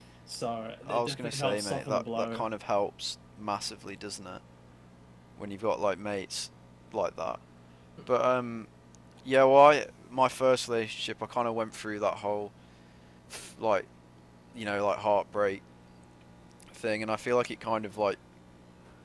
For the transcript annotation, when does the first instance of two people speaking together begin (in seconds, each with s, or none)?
0.9 s